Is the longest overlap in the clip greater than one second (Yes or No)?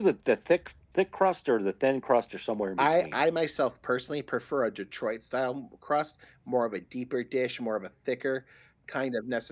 No